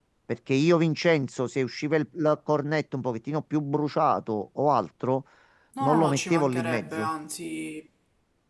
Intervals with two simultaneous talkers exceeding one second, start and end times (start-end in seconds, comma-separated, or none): 5.8-7.1